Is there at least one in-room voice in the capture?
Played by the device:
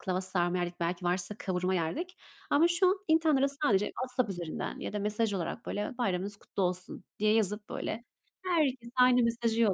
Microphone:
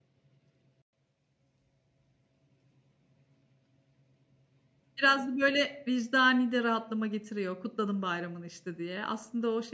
Yes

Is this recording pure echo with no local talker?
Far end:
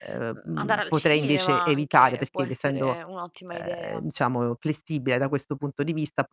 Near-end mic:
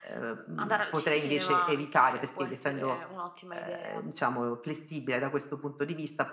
Yes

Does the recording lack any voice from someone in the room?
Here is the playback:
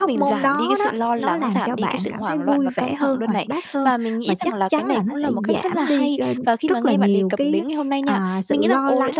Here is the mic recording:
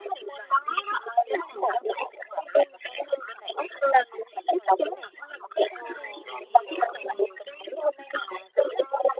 No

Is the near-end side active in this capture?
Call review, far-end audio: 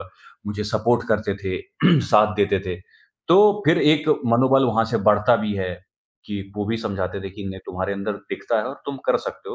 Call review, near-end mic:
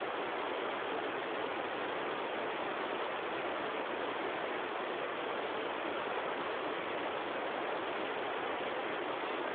No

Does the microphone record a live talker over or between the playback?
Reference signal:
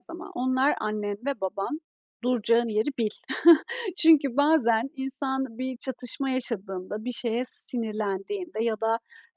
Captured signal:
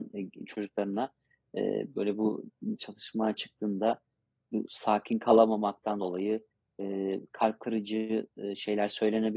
Yes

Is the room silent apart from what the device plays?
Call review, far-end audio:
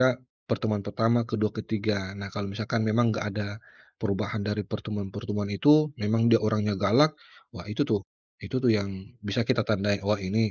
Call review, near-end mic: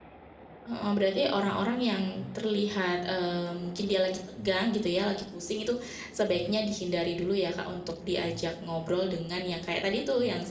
No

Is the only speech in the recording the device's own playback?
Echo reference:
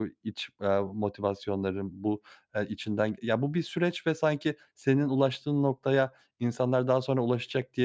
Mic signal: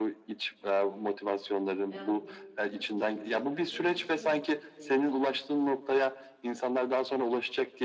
No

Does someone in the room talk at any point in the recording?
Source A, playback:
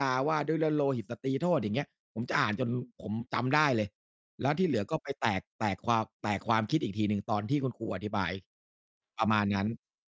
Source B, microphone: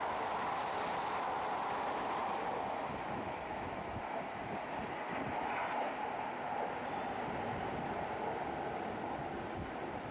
No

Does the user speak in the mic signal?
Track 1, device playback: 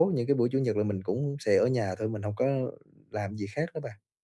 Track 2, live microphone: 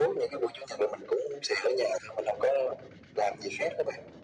No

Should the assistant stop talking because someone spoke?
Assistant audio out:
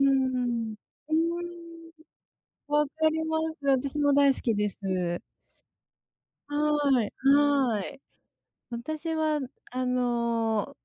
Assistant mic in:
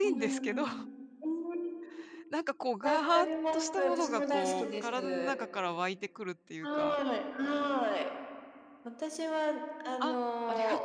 Yes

